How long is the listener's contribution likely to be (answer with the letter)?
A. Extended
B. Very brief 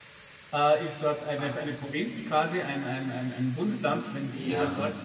A